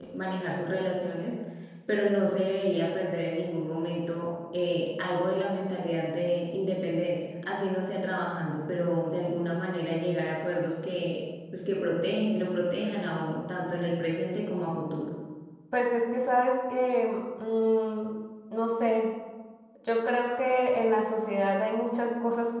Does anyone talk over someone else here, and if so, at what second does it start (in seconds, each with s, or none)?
none